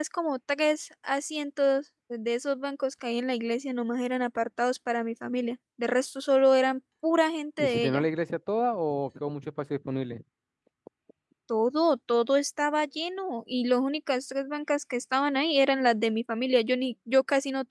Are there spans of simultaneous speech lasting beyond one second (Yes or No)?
No